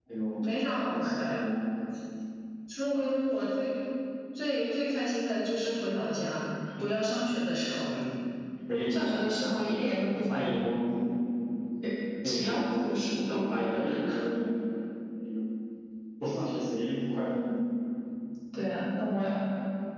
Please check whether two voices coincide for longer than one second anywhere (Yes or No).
Yes